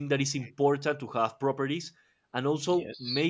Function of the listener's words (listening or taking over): listening